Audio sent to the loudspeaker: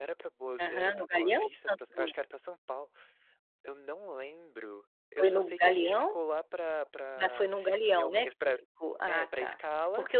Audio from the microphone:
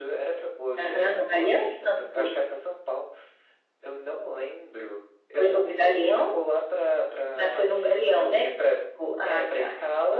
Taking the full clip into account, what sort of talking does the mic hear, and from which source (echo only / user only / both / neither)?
echo only